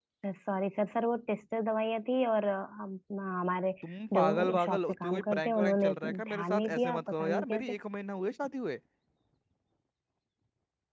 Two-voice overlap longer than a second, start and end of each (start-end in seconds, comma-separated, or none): 4.1-7.7